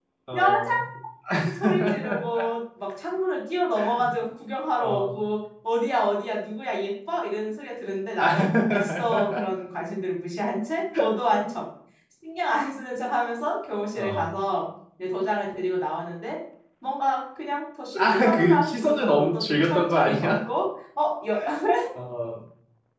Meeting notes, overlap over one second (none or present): present